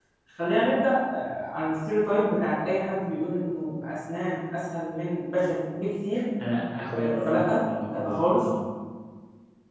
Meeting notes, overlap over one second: present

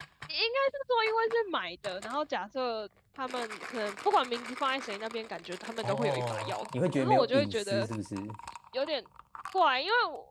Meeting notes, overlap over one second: present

